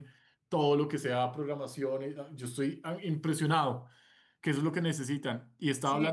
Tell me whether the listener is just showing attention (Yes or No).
Yes